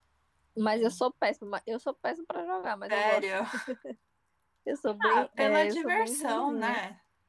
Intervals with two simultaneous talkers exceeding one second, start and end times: 5.0-6.8

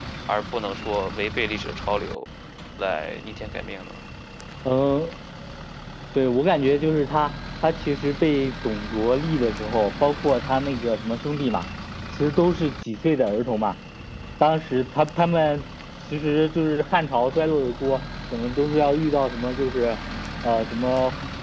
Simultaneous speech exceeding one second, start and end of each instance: none

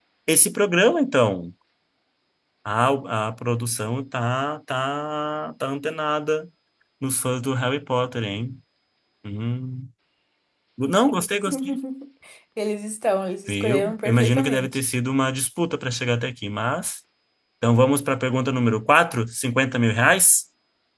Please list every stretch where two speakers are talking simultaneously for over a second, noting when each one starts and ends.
13.5-14.8

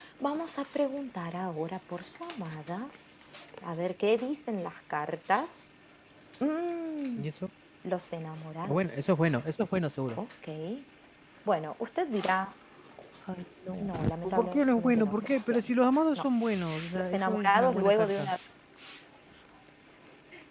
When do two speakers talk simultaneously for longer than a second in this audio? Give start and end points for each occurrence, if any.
13.8-15.7, 16.9-18.3

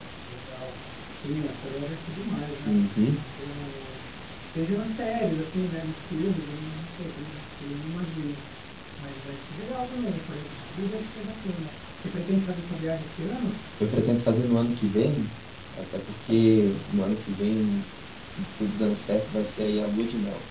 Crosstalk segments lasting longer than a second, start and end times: none

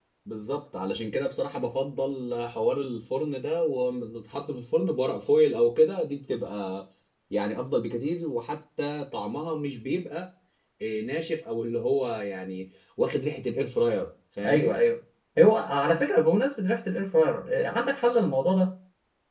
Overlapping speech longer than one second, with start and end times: none

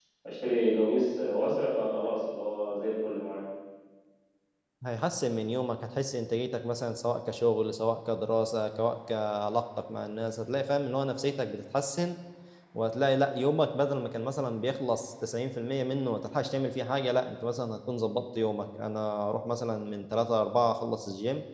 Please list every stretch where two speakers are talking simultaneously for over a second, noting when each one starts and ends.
none

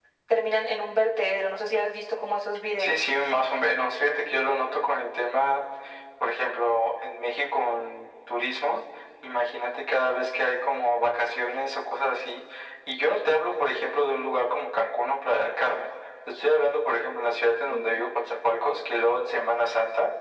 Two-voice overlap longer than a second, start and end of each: none

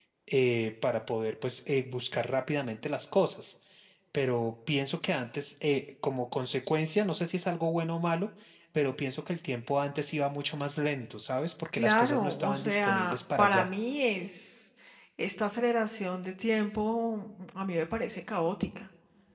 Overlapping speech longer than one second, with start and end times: 11.7-13.7

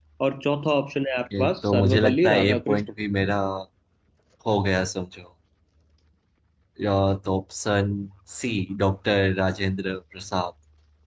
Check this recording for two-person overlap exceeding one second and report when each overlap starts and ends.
1.4-2.8

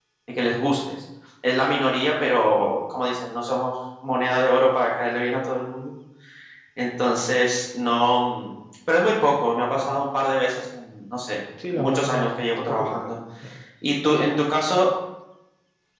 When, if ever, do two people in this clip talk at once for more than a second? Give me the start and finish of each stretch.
11.7-13.2

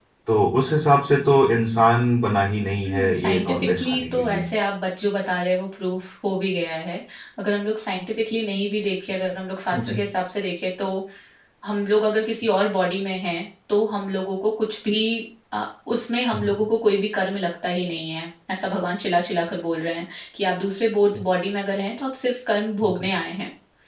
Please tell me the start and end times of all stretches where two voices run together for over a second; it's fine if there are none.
2.8-4.4

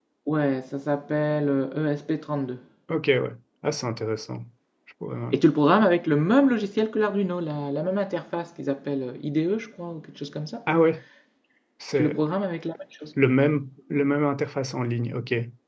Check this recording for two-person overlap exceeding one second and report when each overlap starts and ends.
none

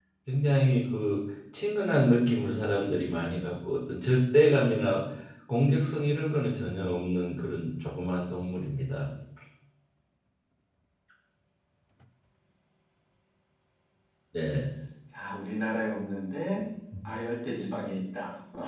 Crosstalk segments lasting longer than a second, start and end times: none

